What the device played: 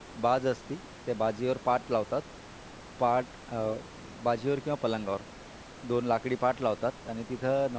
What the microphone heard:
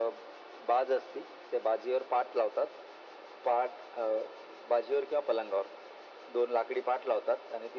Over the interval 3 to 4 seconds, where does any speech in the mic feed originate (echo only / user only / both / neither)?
echo only